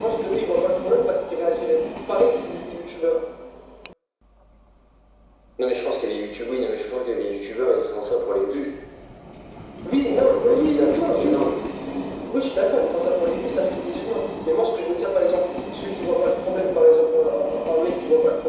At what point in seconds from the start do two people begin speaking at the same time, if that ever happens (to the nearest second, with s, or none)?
10 s